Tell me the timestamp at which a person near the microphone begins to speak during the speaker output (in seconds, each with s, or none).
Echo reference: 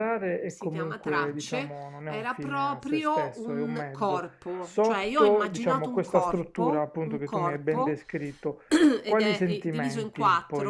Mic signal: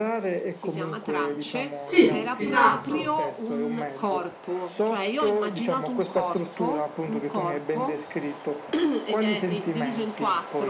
1.8 s